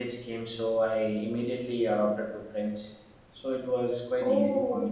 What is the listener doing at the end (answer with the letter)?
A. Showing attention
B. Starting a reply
B